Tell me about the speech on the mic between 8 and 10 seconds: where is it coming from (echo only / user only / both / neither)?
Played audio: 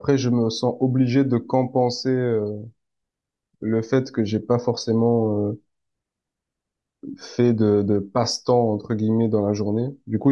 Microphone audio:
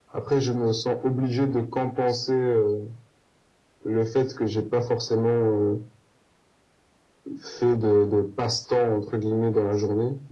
echo only